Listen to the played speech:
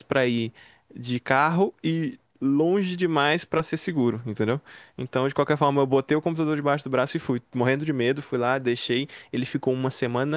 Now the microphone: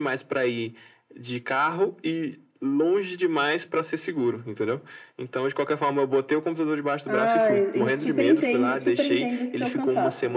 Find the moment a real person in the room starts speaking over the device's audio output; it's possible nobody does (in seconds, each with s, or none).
7.0 s